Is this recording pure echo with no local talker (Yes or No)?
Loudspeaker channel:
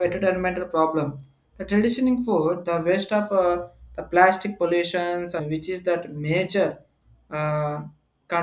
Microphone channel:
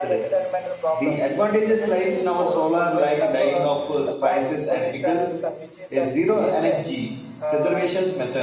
No